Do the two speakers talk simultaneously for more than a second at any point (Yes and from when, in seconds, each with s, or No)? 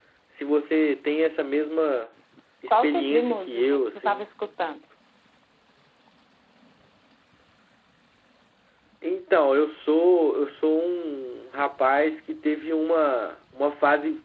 Yes, from 2.7 s